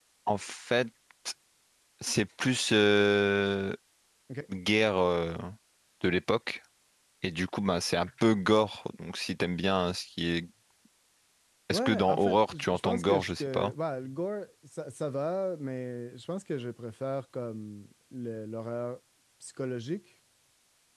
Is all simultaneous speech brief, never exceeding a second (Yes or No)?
No